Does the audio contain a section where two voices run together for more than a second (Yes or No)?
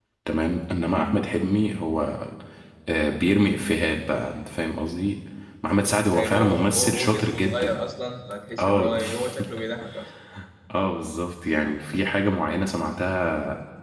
Yes